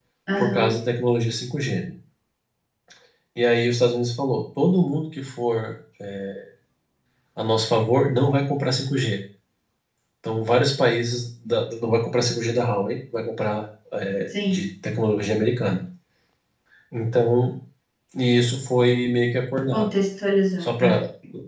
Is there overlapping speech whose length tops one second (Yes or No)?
No